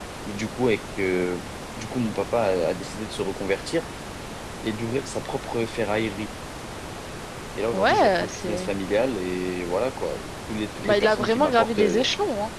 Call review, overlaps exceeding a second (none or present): present